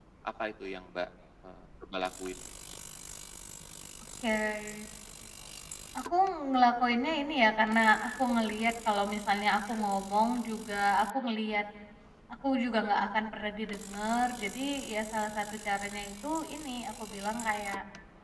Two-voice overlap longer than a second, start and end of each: none

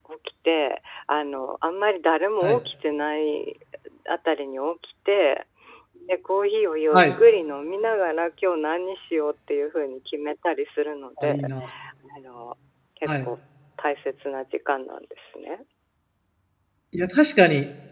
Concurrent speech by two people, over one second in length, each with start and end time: none

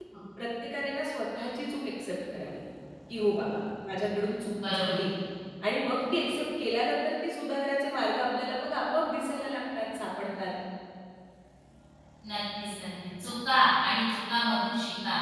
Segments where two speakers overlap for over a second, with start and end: none

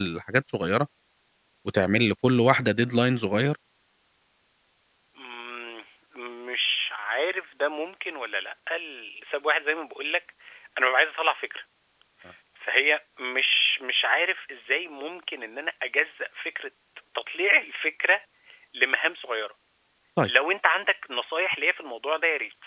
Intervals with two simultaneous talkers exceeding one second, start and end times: none

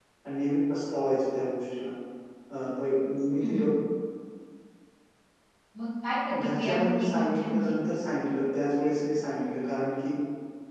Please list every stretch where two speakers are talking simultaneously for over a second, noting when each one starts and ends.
6.3-7.8

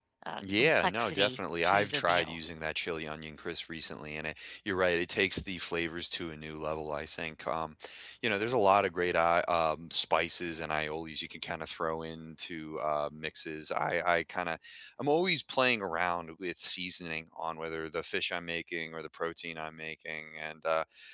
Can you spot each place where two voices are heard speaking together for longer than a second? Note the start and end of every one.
0.5-2.4

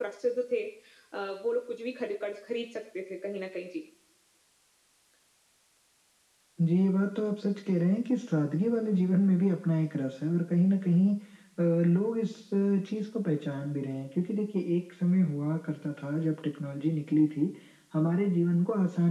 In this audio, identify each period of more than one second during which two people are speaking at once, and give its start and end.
none

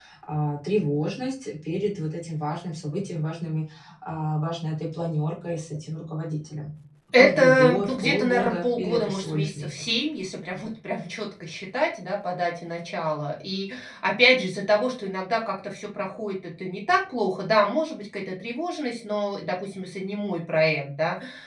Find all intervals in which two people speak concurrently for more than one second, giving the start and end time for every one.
7.2-9.9

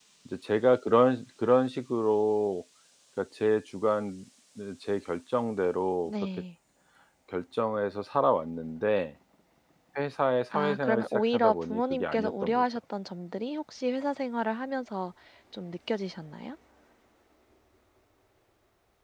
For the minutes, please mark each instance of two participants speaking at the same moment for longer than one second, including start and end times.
10.5-12.7

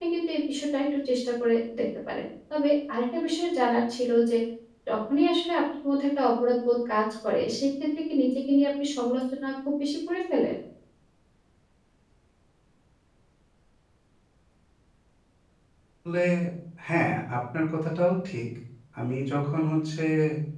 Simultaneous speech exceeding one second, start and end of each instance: none

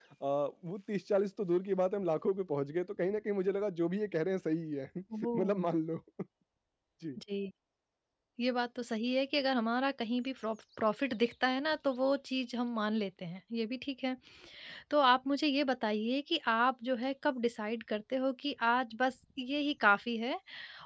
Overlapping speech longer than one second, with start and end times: none

